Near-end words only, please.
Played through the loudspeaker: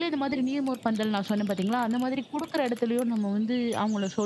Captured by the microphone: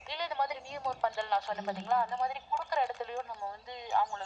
ம்.

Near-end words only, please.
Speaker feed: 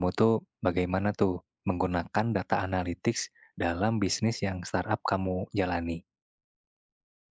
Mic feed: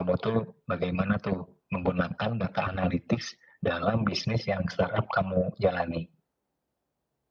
none

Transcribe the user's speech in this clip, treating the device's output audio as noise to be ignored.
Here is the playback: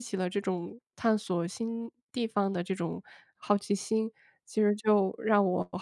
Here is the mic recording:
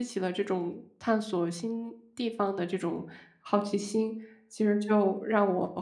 none

